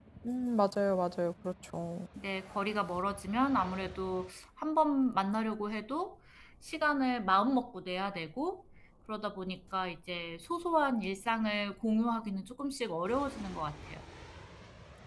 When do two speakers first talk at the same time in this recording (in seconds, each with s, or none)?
none